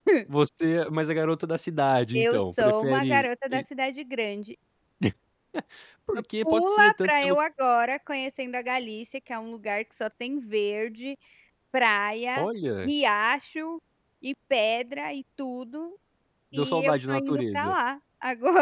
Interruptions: present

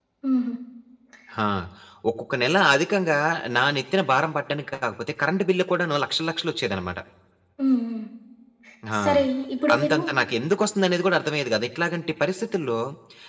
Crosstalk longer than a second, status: none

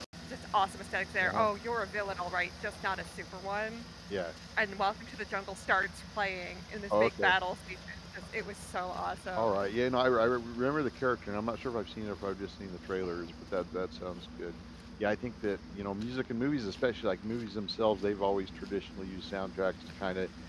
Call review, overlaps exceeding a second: none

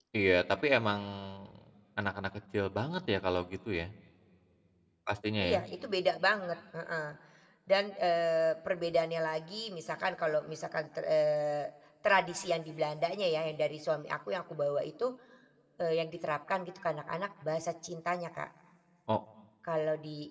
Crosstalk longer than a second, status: none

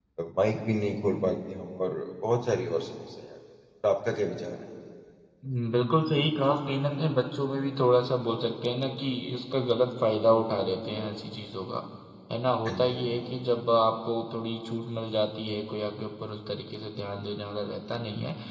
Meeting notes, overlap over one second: none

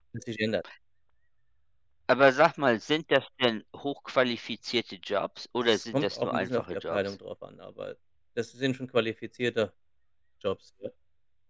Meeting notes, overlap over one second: present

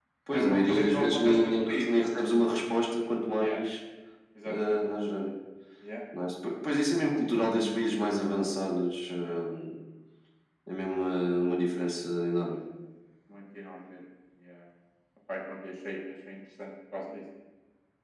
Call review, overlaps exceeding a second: present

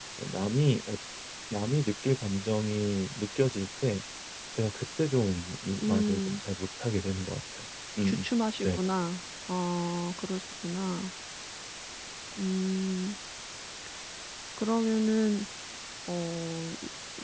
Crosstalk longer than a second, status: none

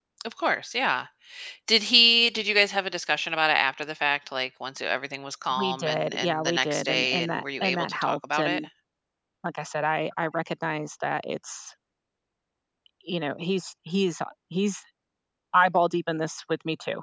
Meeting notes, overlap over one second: present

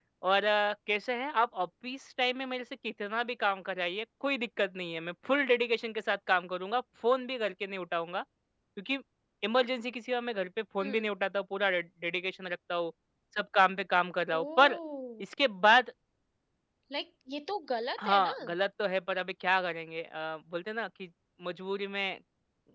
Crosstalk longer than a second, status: none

